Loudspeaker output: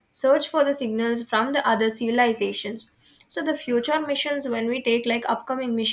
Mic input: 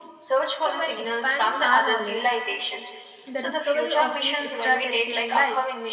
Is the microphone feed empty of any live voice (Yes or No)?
No